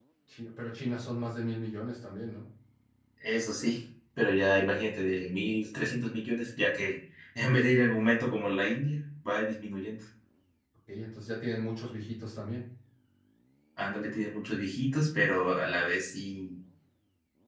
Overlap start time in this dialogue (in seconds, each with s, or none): none